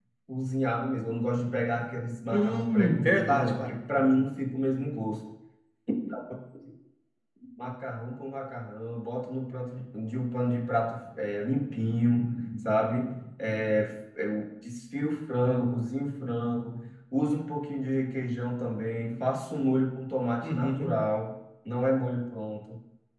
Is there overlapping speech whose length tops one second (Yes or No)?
Yes